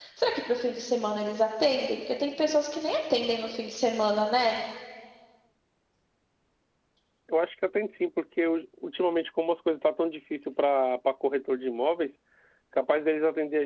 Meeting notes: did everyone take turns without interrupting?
Yes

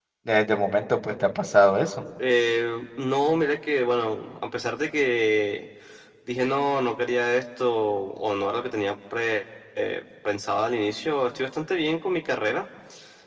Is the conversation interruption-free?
Yes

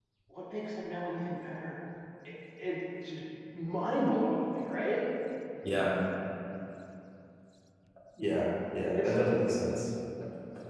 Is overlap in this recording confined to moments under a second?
Yes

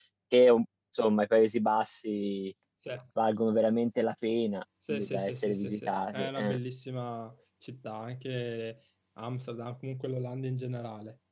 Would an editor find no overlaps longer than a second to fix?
No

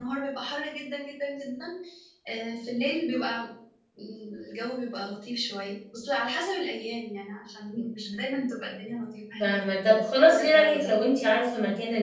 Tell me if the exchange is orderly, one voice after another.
No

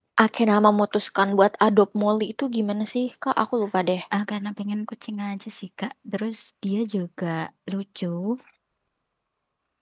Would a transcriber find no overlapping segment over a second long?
Yes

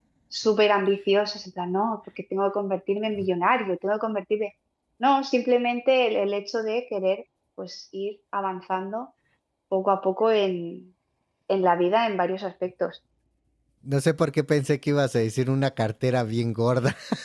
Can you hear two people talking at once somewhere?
No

